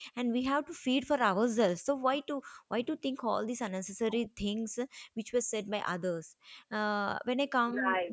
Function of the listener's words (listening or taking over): listening